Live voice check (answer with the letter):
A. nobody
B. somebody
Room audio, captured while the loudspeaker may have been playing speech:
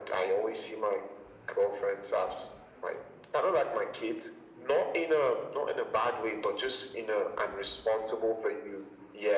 A